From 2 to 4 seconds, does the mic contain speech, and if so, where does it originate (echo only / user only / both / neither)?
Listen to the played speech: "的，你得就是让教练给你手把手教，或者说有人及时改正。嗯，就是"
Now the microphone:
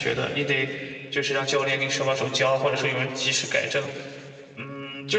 echo only